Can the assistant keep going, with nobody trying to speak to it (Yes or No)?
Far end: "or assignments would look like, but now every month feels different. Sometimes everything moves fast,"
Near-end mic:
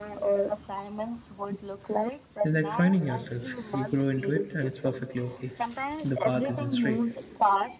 No